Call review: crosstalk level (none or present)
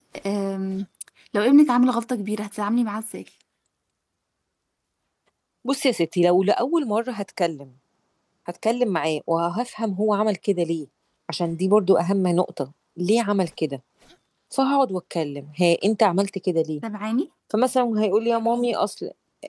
none